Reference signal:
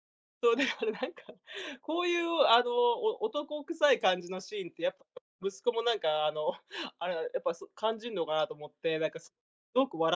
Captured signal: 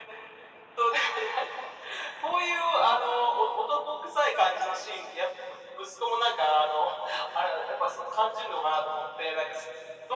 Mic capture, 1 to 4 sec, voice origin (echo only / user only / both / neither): echo only